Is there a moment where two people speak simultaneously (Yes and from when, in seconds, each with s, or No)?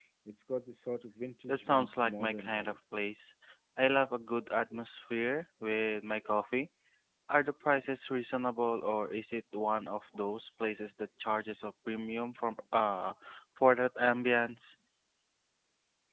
Yes, from 1.5 s